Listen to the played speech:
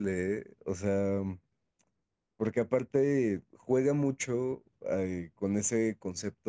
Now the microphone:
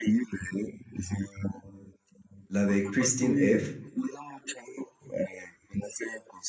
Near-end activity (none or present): present